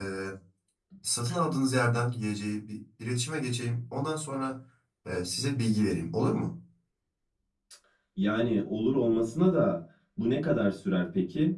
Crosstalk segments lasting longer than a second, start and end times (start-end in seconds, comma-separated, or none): none